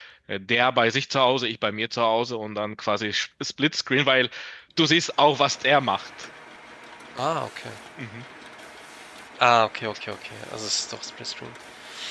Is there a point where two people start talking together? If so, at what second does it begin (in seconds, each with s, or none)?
none